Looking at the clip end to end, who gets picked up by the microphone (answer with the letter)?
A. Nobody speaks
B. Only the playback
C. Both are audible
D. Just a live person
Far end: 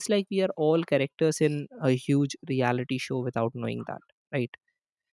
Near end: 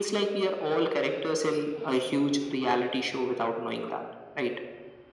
B